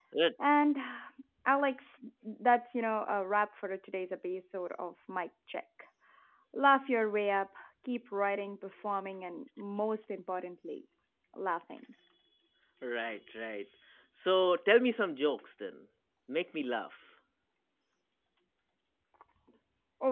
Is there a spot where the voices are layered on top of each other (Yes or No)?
No